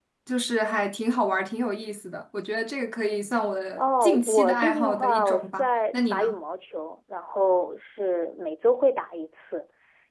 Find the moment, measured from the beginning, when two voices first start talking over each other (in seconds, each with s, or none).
3.8 s